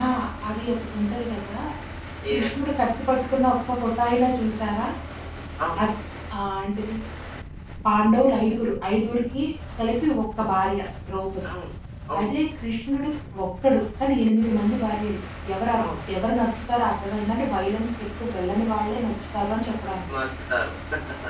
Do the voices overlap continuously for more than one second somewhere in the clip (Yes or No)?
No